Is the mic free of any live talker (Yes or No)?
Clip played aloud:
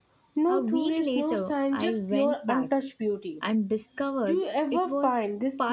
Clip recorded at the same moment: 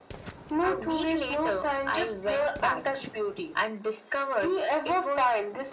Yes